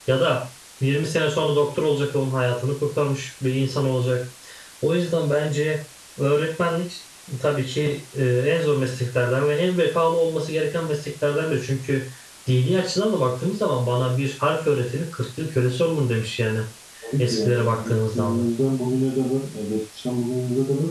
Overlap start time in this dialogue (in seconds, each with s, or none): 17.2 s